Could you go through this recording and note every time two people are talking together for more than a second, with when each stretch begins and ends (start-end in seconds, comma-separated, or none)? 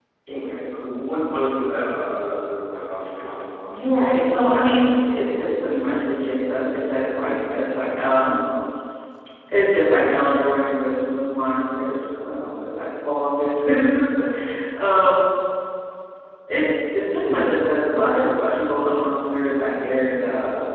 none